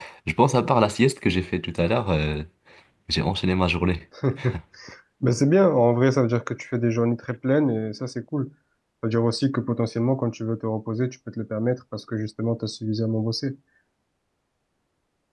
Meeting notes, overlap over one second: none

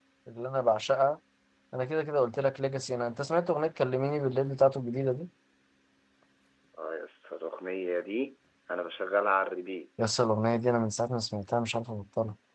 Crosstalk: none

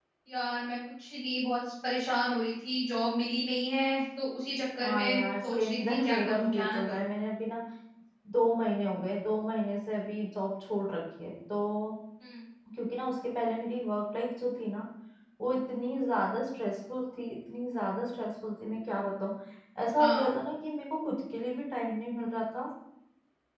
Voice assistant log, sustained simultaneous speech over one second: present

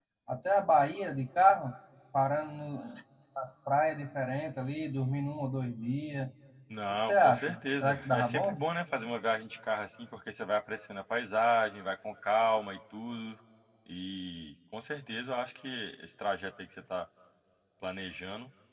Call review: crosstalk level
present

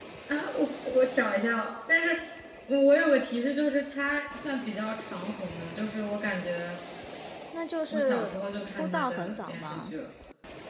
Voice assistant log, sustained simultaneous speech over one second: present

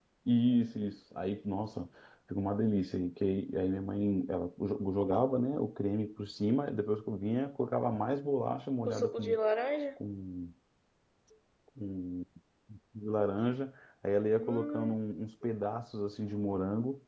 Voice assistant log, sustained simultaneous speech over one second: none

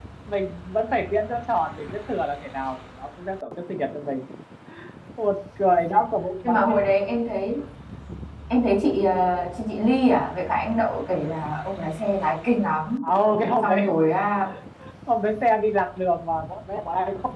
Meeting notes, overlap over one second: none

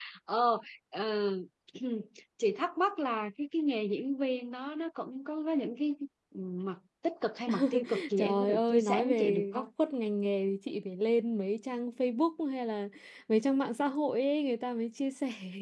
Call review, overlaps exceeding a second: present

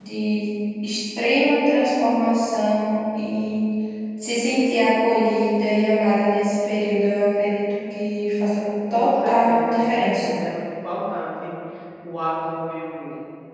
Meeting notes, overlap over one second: present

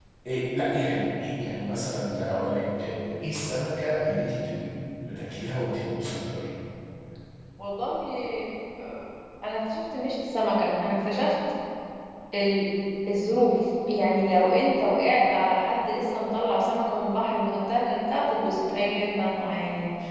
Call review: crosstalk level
none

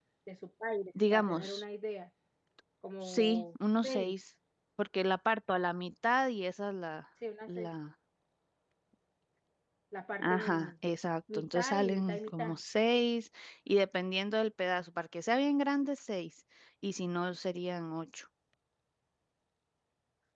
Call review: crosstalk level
present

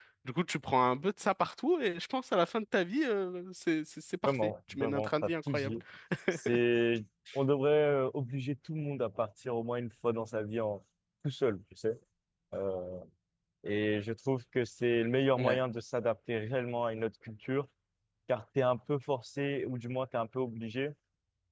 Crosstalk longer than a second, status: present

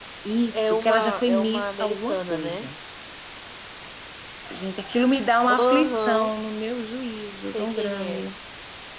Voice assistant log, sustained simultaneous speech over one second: present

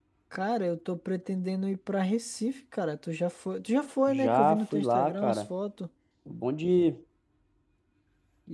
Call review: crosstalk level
present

